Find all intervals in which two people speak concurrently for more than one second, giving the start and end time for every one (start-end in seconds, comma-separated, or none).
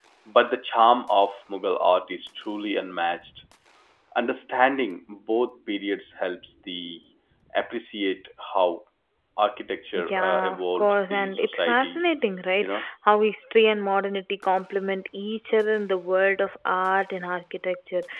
10.1-12.0